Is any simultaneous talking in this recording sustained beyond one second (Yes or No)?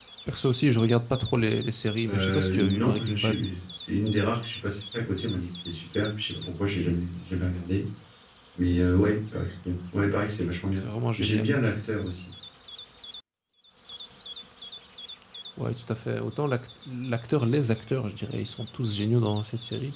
Yes